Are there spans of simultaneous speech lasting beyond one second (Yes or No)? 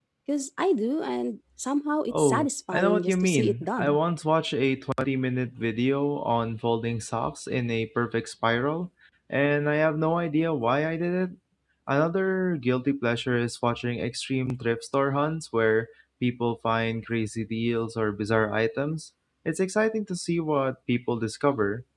Yes